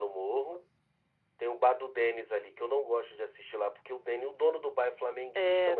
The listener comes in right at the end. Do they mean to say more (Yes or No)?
Yes